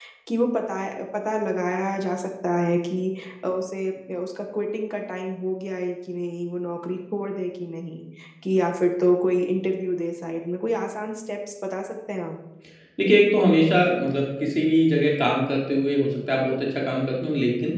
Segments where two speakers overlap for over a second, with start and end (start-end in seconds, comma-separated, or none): none